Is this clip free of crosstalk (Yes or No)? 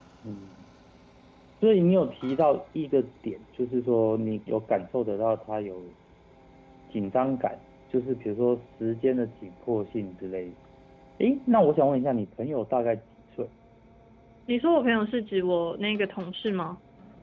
Yes